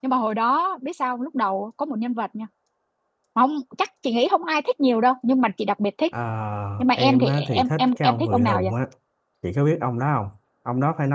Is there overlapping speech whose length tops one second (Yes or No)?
Yes